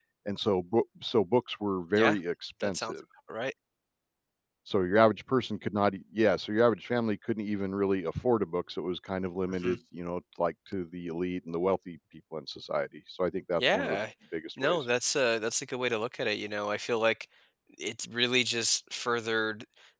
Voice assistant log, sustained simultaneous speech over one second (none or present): none